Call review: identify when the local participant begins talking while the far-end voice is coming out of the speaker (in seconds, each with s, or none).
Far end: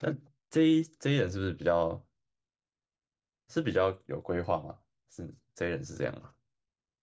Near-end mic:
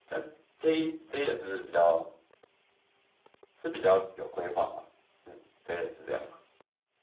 none